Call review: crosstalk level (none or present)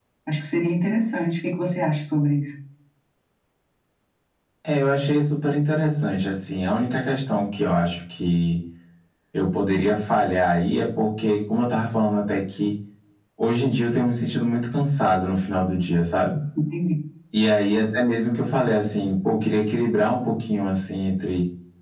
none